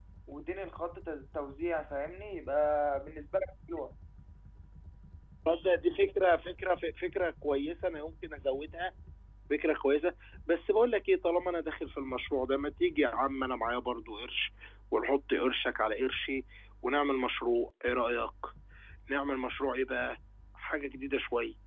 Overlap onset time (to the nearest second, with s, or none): none